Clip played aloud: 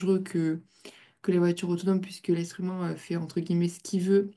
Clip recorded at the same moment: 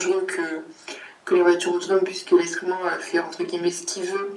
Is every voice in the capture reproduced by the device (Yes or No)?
Yes